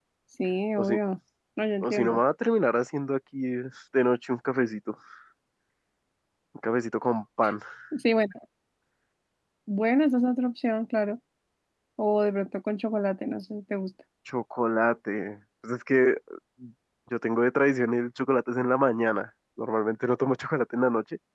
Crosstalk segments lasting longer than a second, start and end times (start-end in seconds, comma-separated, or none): none